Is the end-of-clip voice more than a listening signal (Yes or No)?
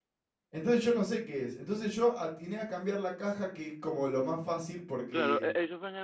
Yes